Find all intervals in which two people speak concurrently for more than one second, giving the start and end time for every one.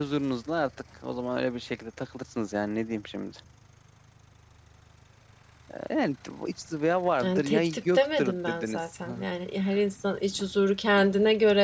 7.2-9.2

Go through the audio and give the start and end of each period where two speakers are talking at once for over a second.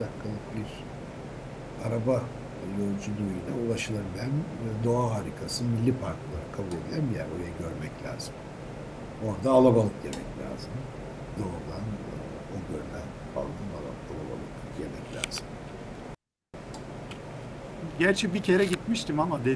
none

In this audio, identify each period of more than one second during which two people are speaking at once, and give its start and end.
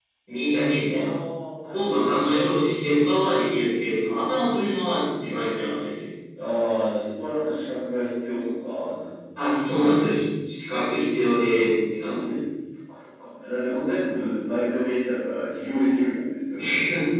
none

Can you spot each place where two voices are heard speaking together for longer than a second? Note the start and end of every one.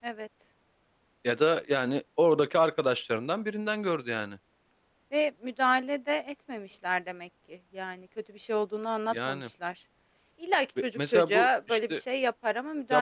10.8-12.0

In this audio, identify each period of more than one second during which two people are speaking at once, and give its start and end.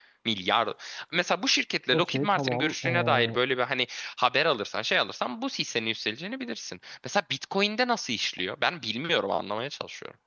1.9-3.4

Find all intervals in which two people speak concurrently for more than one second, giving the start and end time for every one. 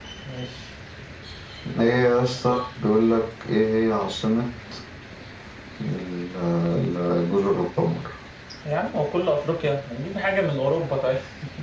none

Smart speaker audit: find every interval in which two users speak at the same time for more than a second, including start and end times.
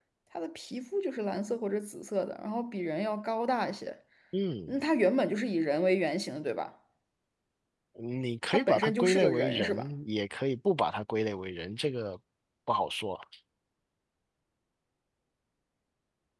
8.5-9.9

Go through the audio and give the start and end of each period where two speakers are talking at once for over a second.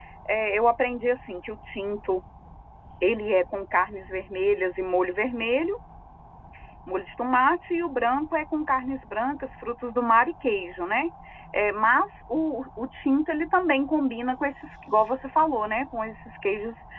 none

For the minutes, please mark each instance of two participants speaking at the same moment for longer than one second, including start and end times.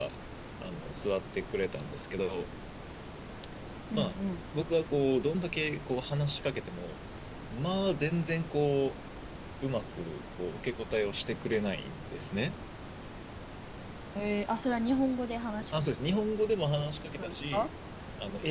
none

